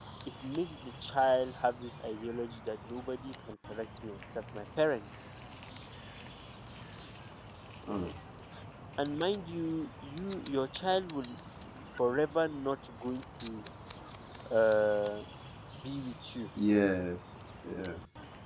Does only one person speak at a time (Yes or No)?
Yes